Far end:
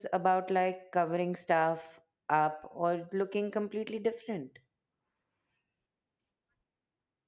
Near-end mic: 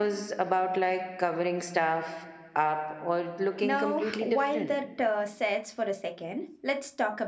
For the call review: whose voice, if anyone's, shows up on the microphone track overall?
both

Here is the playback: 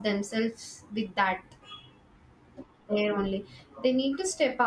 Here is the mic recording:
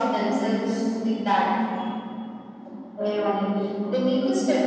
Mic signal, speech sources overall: echo only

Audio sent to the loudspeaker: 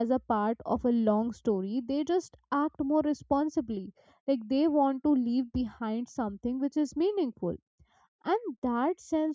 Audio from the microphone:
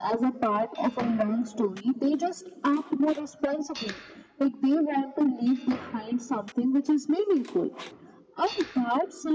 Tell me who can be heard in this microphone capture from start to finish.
echo only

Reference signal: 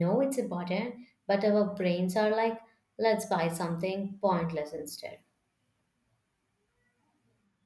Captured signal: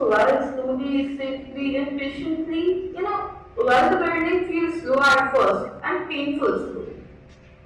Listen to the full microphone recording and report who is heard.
user only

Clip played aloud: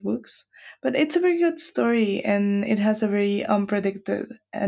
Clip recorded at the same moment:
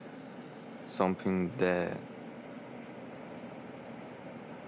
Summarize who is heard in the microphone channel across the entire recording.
user only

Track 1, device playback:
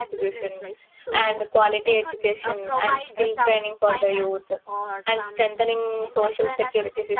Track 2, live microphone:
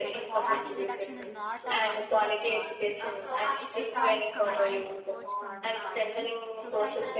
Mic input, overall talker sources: both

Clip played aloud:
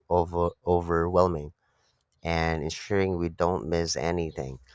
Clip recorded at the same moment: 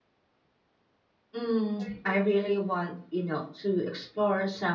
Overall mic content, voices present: user only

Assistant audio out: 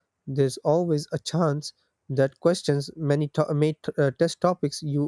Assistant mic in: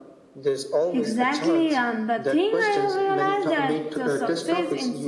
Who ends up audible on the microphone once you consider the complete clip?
both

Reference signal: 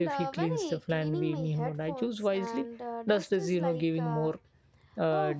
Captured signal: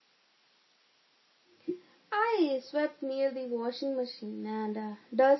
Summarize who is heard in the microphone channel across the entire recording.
user only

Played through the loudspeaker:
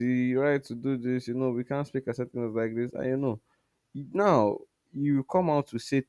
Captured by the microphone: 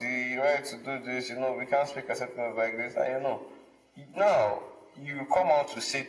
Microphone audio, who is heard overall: echo only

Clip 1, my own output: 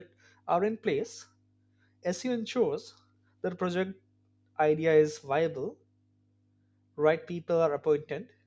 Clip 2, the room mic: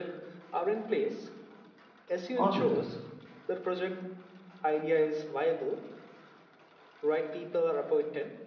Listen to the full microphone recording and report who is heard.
both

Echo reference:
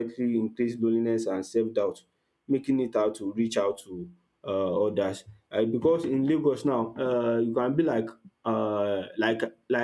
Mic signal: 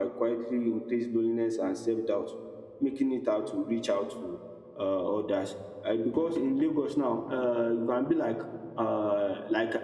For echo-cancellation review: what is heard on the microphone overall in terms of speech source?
echo only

